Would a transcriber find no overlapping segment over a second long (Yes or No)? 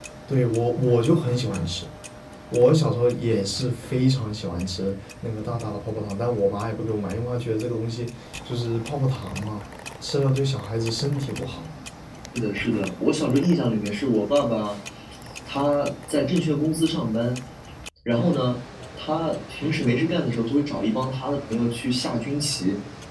Yes